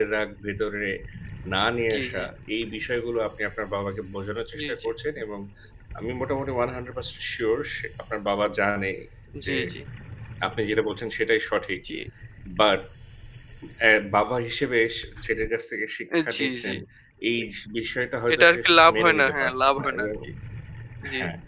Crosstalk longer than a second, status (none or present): present